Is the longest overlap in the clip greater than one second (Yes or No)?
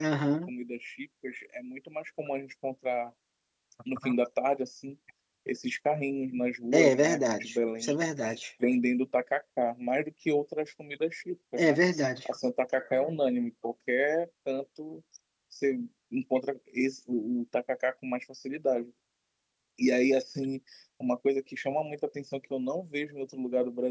Yes